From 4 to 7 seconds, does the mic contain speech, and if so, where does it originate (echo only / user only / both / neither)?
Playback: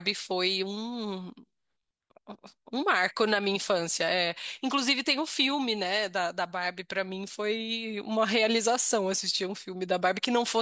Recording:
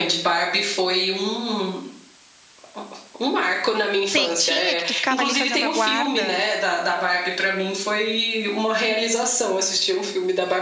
both